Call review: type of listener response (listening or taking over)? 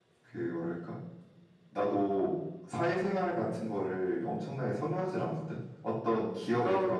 listening